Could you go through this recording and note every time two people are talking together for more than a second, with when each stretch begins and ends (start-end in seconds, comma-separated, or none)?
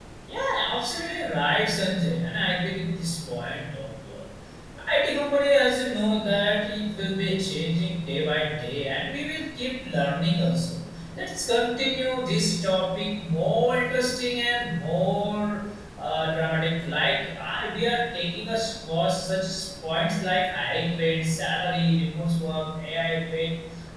none